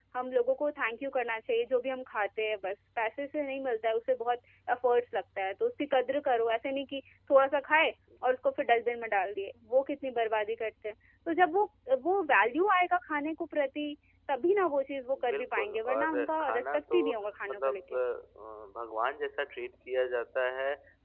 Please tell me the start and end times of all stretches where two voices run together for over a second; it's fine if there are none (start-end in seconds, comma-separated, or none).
15.3-17.0